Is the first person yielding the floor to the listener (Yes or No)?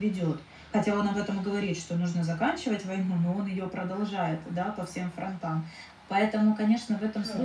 No